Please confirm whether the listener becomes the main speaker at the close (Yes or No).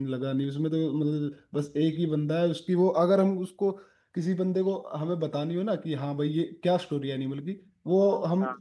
No